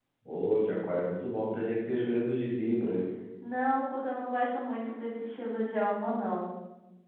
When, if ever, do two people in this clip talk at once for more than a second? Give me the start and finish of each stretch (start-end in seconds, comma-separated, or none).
none